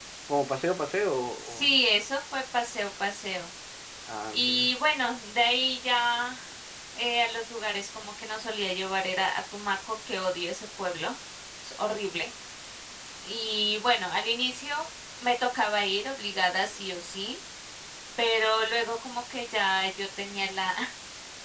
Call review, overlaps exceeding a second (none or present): none